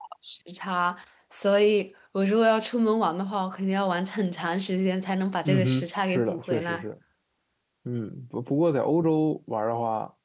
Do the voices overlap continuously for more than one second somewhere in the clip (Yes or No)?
Yes